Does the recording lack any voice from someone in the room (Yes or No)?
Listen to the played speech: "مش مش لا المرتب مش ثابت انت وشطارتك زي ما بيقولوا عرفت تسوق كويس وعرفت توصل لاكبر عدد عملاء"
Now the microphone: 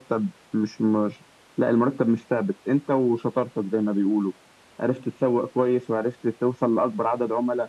Yes